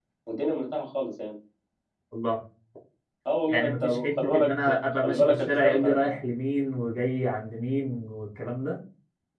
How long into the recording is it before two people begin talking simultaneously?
3.5 s

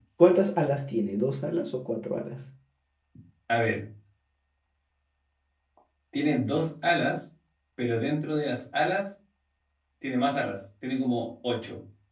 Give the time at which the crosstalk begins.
none

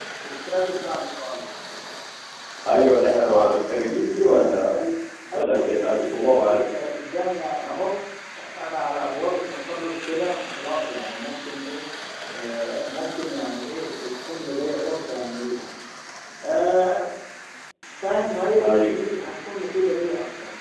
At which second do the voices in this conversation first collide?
3.3 s

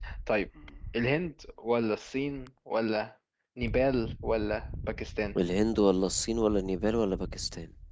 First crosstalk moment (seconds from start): none

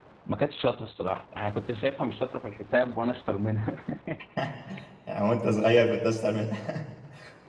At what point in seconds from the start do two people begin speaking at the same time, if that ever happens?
none

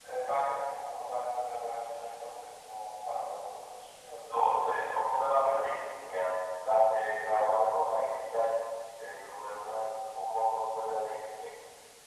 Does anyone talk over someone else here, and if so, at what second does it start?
4.3 s

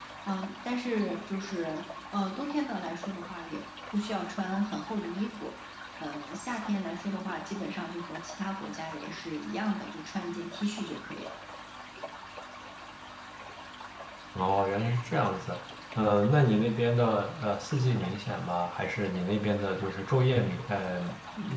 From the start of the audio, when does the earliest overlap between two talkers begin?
none

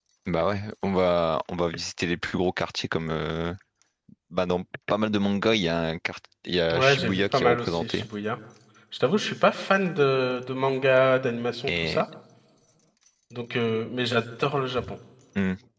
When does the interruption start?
6.7 s

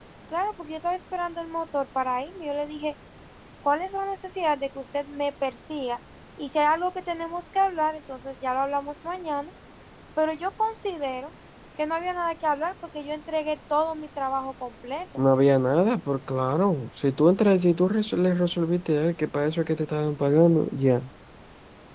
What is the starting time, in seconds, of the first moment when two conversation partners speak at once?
none

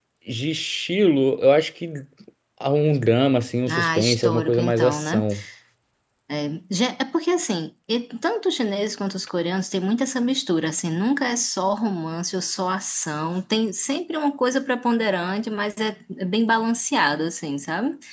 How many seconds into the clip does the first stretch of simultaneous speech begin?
3.7 s

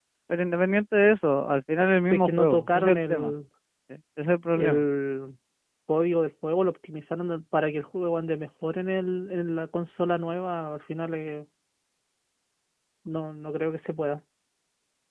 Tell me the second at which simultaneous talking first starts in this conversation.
2.0 s

